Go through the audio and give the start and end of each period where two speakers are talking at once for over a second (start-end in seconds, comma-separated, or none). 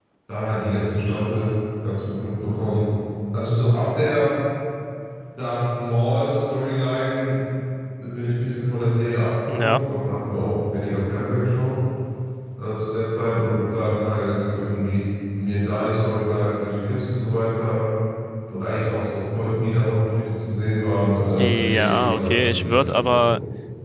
21.4-23.3